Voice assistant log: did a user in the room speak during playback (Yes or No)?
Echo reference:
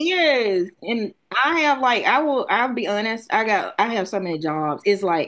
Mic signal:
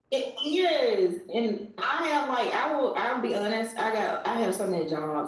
No